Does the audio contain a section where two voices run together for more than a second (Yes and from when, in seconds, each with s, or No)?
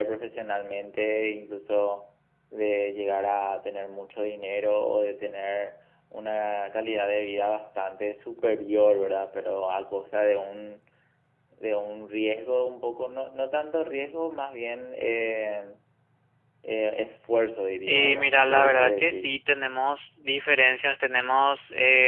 Yes, from 17.9 s